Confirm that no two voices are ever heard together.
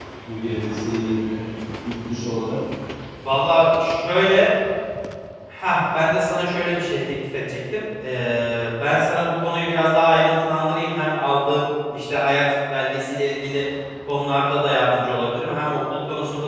Yes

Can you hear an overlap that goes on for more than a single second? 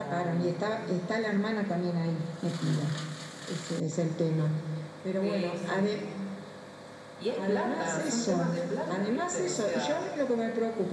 Yes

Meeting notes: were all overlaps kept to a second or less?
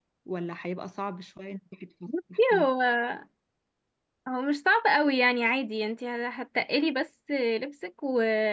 Yes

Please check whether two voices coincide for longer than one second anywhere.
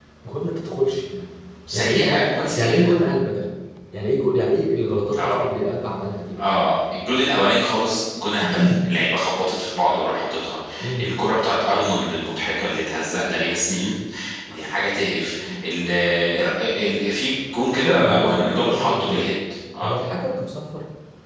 Yes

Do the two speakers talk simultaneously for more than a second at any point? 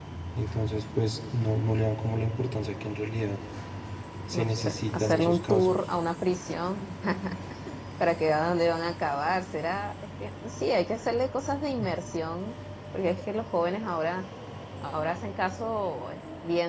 Yes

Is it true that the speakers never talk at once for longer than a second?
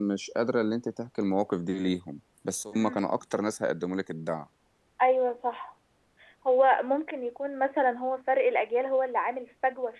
Yes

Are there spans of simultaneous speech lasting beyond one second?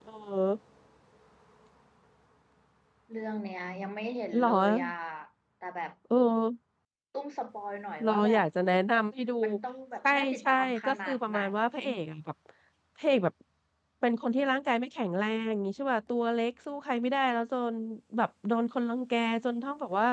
Yes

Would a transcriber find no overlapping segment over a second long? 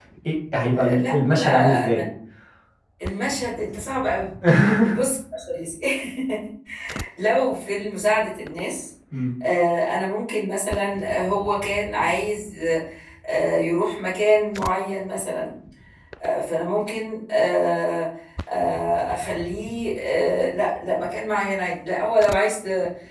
No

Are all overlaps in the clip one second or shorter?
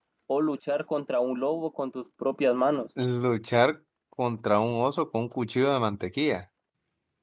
Yes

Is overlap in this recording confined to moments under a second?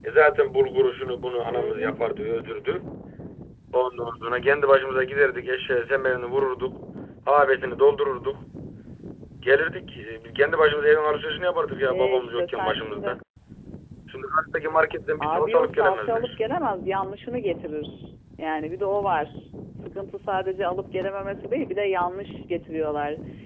No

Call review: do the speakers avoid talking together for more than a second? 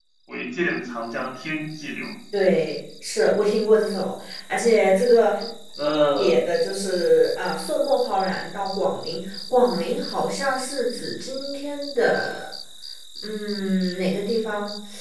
Yes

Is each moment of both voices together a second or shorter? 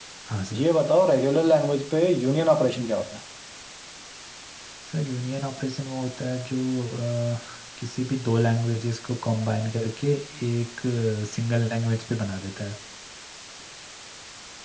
Yes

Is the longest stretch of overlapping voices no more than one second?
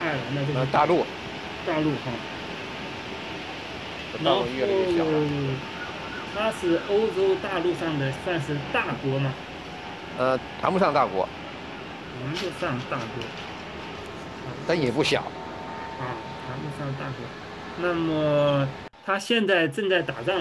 No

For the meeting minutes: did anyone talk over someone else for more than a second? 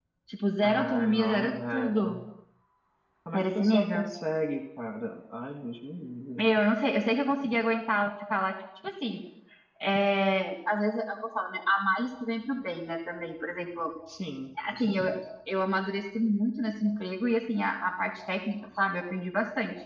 Yes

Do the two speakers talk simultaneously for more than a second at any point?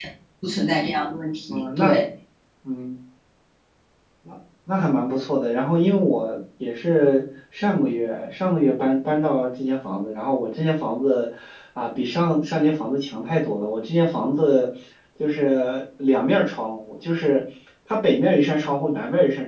No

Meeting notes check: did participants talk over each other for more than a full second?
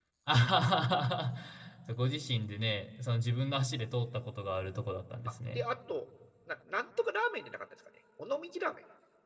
No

